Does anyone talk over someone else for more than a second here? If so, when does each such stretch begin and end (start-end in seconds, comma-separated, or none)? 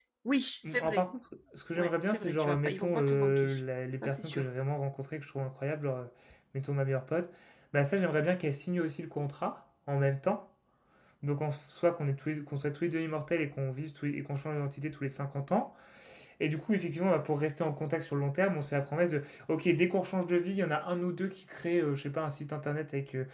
1.8-3.5